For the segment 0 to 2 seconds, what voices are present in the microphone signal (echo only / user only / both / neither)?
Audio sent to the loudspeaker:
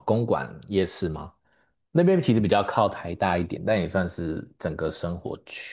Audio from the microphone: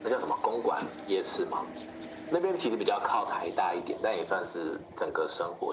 echo only